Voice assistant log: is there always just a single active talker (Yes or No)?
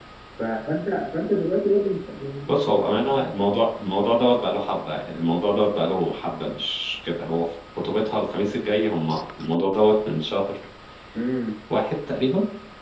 Yes